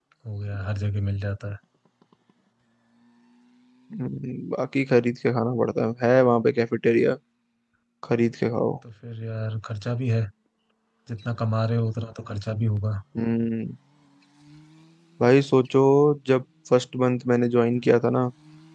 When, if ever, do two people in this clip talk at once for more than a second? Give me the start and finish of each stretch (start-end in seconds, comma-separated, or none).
none